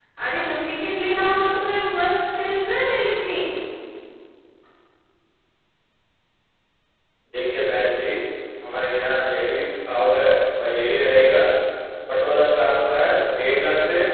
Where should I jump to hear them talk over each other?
none

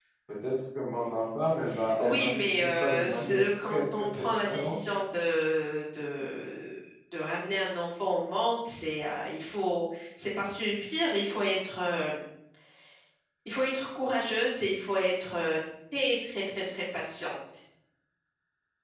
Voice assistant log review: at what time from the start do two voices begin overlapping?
2.0 s

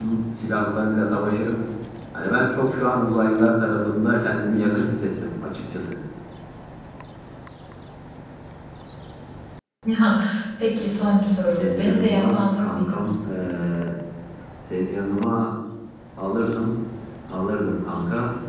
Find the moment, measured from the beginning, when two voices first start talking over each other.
11.6 s

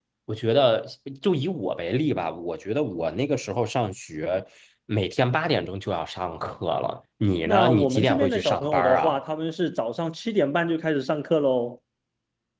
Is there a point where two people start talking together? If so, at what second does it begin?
7.5 s

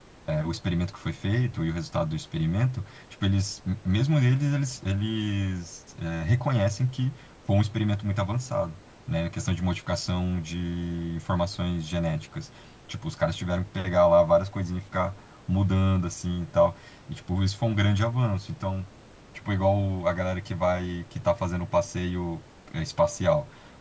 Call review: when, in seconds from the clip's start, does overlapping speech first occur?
none

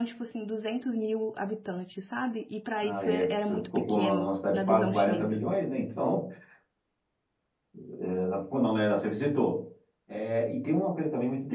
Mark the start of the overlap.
2.8 s

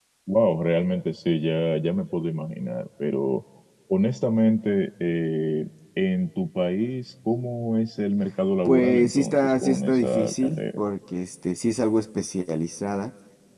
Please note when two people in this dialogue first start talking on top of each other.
8.7 s

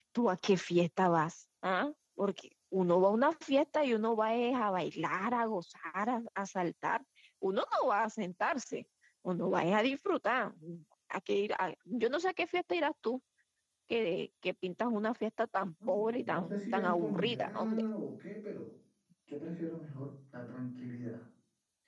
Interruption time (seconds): 15.8 s

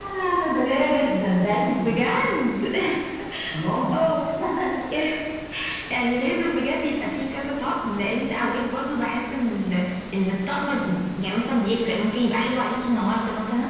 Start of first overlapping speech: none

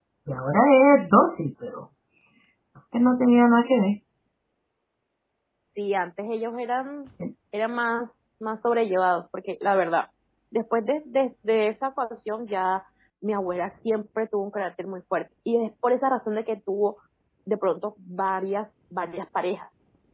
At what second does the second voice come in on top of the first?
none

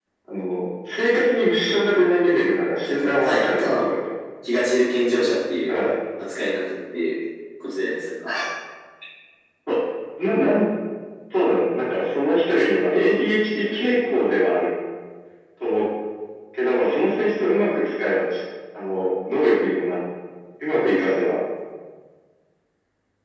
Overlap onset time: 2.4 s

